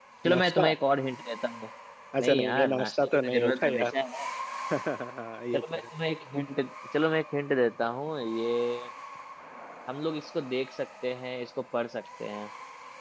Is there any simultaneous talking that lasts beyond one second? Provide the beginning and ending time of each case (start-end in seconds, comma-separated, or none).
2.2-3.9